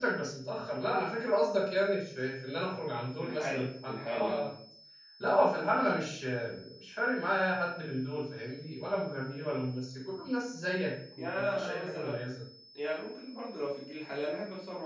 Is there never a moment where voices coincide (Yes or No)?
No